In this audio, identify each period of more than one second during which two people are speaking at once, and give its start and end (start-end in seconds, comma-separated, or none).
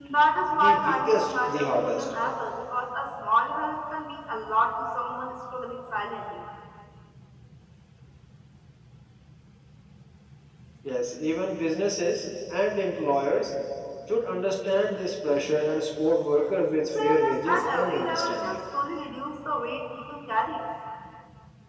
0.6-2.0, 17.0-18.6